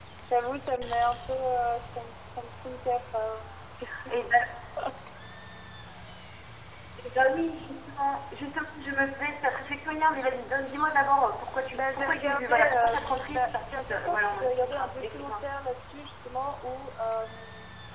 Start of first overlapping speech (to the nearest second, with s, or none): 12 s